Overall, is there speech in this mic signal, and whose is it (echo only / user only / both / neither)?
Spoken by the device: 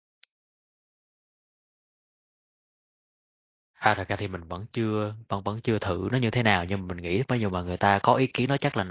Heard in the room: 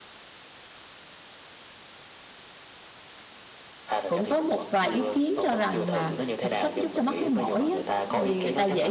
both